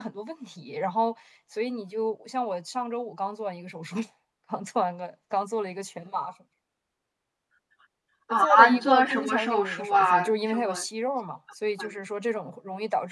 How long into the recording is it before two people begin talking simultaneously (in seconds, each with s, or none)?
8.3 s